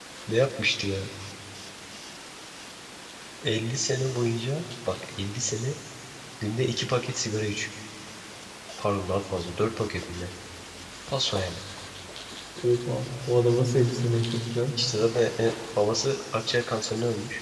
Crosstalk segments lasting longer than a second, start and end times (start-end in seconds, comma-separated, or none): none